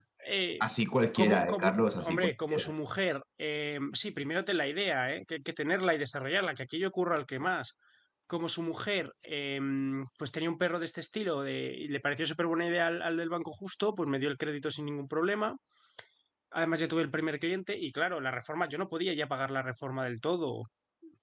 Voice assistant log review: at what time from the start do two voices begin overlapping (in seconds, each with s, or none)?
1.2 s